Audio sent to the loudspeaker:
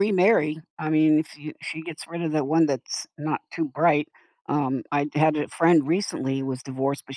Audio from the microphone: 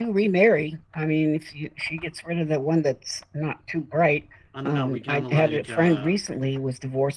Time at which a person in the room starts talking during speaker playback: 4.5 s

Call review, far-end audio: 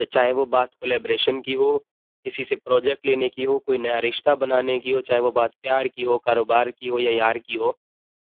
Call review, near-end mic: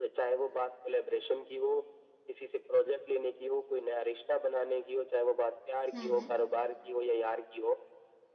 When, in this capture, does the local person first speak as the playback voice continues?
5.9 s

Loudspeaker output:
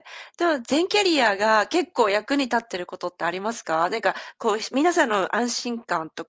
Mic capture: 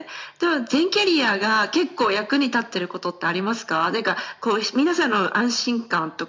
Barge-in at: none

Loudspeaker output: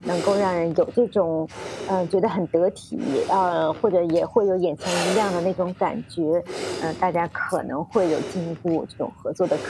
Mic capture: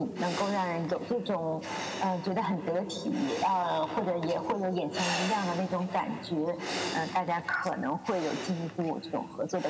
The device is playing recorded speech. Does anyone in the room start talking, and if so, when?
none

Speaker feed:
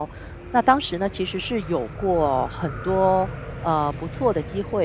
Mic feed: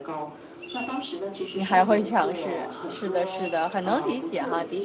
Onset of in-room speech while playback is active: 1.6 s

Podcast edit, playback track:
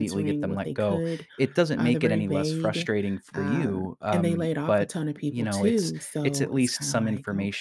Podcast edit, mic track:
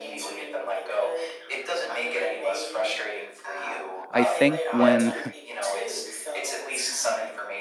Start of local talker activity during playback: 4.1 s

